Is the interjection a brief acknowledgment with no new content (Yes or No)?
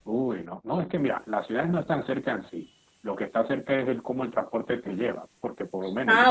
Yes